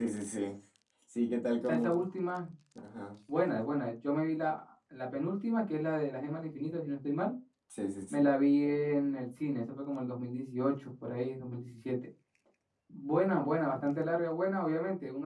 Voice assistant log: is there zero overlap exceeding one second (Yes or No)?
Yes